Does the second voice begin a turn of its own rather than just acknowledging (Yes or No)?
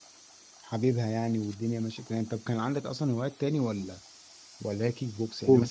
No